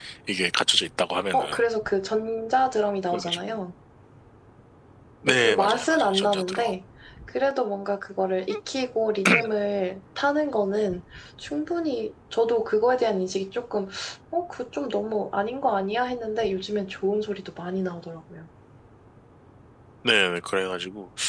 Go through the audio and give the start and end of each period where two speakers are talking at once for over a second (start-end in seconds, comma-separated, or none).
5.2-6.7